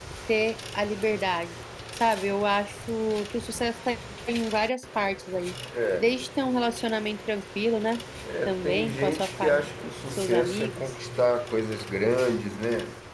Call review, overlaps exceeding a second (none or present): present